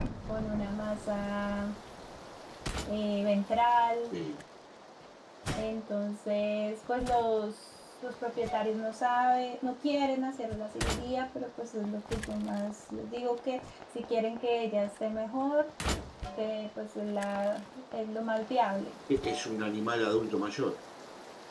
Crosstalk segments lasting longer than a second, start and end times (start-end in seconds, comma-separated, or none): none